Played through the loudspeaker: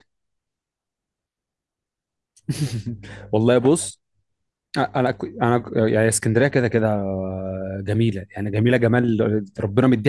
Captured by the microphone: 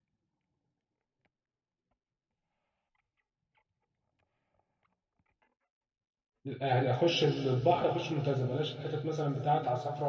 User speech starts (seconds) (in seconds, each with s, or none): 6.4 s